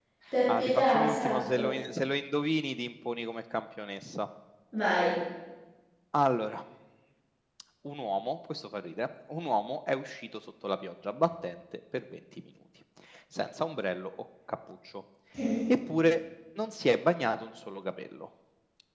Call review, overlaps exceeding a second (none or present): present